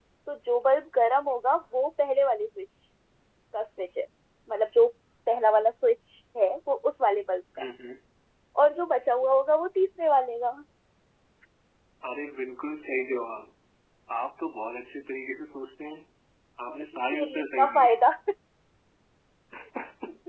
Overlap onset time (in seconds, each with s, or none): 16.7 s